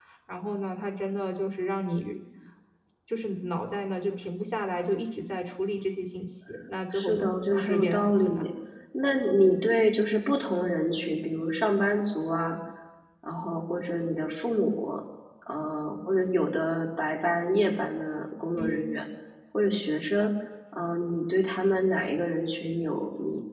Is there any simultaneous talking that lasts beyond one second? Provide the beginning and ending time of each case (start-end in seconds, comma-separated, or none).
6.9-8.5